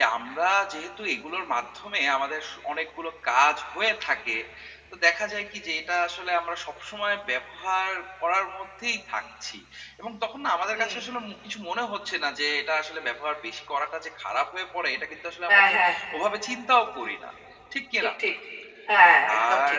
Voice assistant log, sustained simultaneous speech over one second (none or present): none